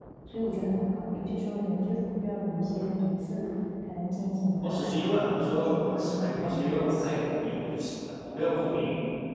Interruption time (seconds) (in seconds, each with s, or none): 4.6 s